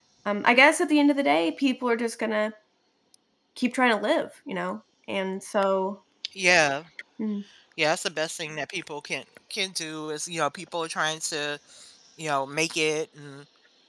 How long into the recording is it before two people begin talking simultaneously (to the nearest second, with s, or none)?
none